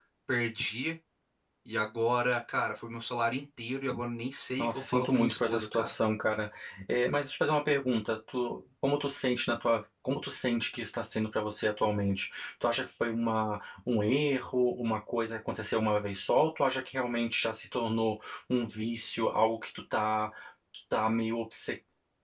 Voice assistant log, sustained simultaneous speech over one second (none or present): present